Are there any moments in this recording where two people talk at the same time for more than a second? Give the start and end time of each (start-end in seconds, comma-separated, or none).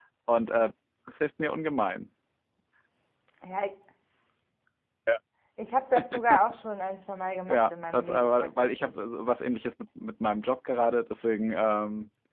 7.5-8.9